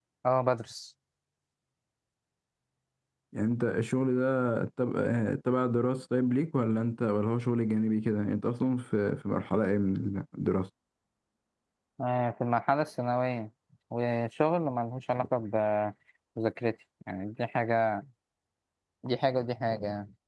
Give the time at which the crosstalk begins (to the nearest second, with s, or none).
none